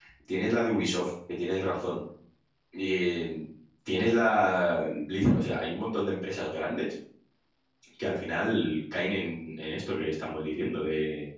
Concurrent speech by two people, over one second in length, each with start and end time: none

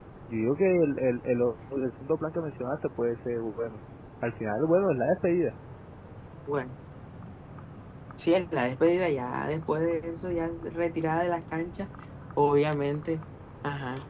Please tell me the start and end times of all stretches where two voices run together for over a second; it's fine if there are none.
none

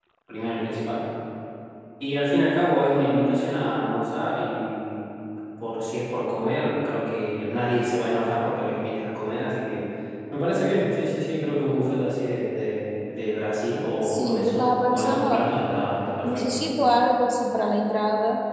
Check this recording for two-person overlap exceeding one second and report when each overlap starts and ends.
14.0-15.4

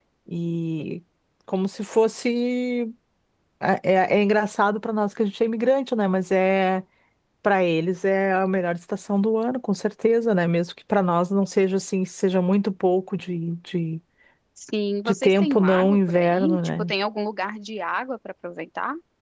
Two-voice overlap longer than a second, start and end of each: 15.1-16.9

